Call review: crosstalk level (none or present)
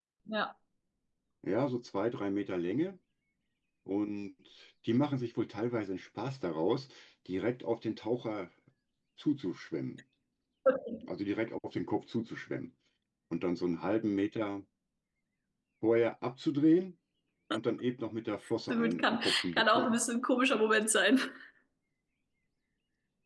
present